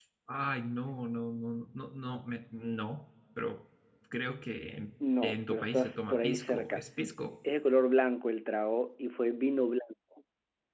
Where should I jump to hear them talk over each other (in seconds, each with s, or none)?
5.0 s